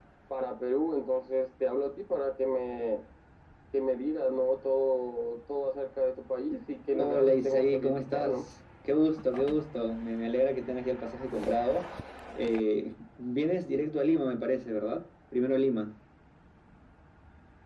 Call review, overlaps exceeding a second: present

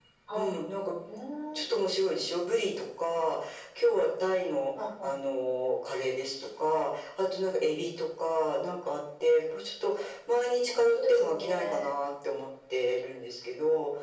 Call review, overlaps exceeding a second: present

